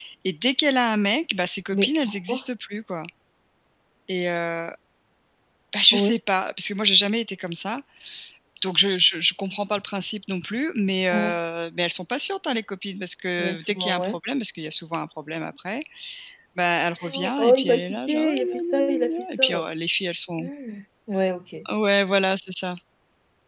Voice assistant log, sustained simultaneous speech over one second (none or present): present